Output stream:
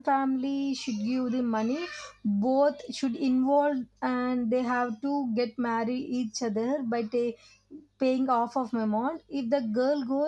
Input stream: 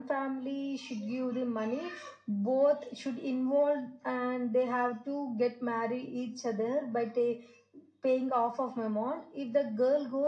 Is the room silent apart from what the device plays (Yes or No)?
Yes